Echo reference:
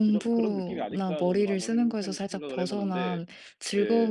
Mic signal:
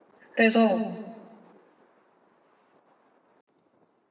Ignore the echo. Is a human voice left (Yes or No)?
Yes